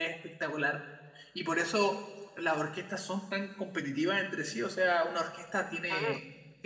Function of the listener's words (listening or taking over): listening